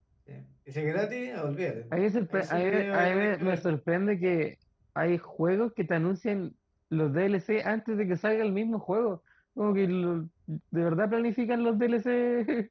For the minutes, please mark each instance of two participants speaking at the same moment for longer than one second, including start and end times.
2.3-3.6

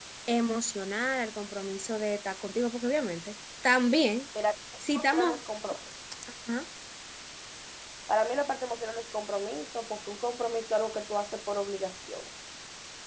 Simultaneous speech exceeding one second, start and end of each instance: none

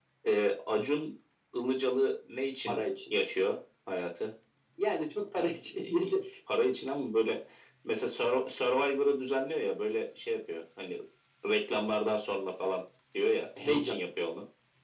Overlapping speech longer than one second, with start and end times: none

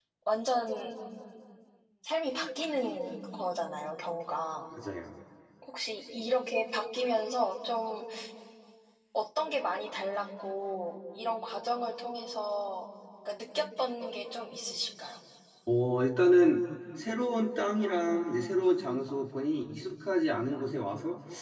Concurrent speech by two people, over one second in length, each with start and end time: none

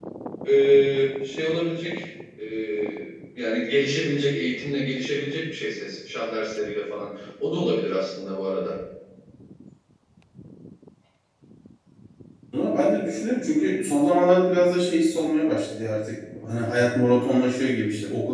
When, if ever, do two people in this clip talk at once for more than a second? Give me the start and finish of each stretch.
none

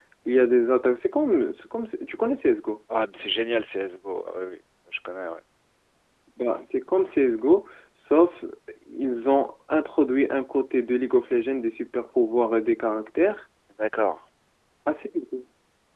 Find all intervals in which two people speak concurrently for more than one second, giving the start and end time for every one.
none

